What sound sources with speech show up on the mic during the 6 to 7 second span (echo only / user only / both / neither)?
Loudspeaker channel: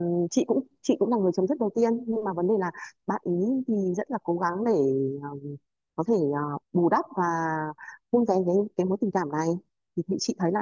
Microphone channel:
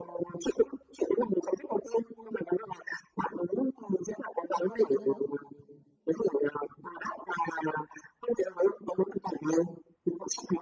echo only